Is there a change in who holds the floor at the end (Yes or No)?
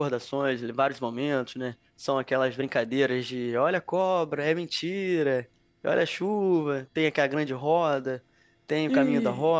Yes